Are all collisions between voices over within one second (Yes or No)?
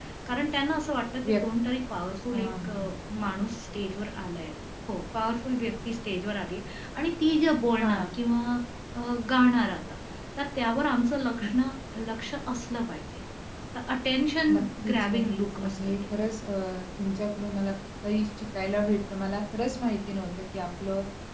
No